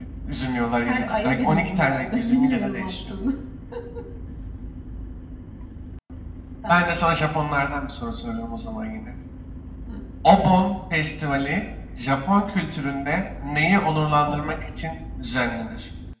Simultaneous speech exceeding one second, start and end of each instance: 0.8-3.1

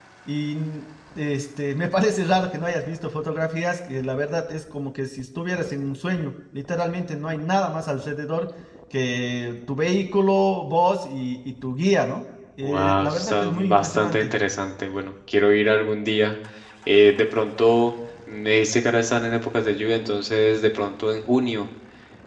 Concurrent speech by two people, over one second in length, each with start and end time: 12.6-14.3

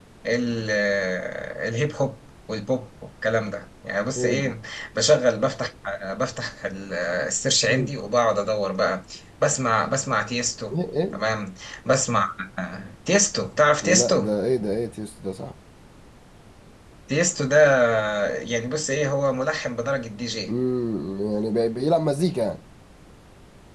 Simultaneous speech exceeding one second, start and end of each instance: none

